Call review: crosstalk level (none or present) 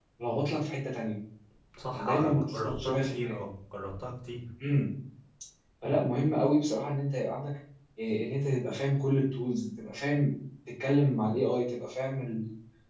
present